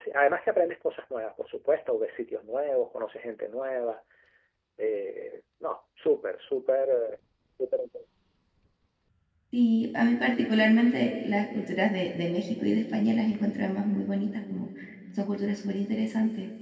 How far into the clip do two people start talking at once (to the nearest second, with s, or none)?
none